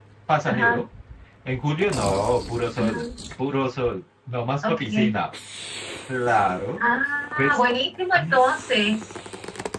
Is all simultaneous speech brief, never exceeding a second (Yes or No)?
Yes